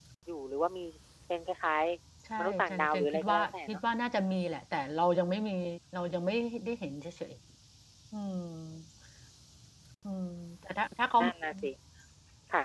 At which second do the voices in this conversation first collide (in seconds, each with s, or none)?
2.3 s